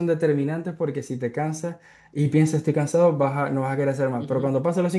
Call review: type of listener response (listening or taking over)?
listening